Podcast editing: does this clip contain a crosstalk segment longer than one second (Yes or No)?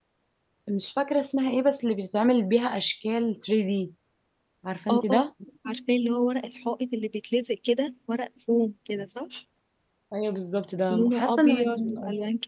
Yes